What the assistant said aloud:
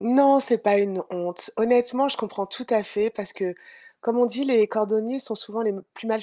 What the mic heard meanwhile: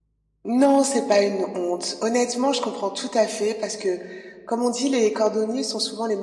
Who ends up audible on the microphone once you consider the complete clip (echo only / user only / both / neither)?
echo only